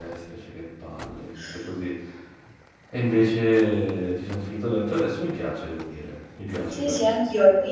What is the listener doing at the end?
taking over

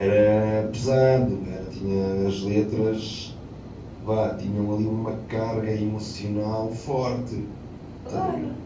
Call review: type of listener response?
taking over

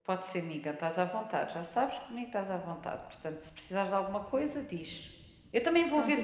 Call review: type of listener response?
listening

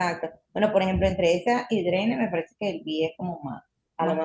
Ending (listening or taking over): listening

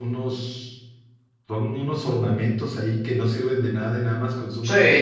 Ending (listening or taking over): taking over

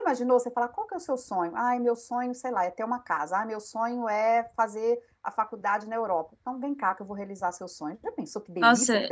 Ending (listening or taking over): taking over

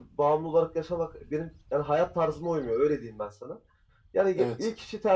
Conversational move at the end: listening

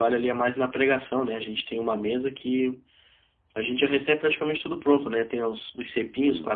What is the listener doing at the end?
listening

